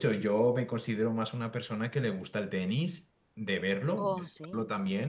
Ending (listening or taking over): listening